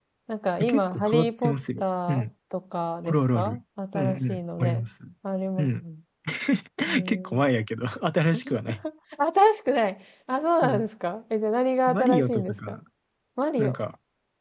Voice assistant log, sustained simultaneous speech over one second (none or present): present